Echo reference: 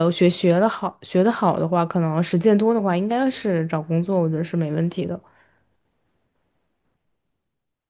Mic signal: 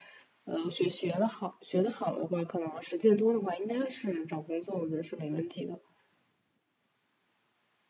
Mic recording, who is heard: echo only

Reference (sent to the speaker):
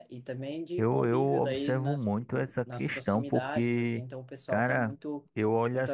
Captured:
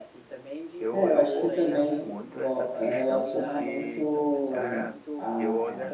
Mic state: both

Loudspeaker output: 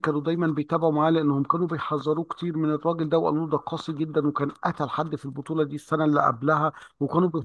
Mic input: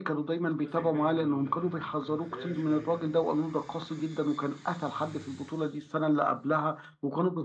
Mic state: both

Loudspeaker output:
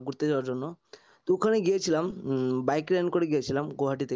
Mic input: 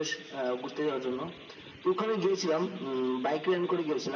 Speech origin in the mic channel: echo only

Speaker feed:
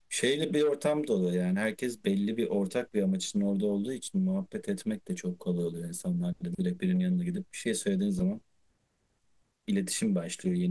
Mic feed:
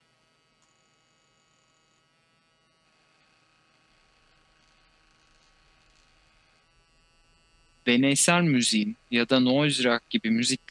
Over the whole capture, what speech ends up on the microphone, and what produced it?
user only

